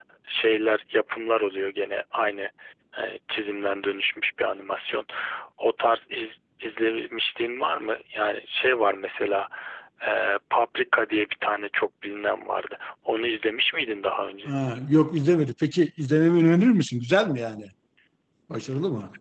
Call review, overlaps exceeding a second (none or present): none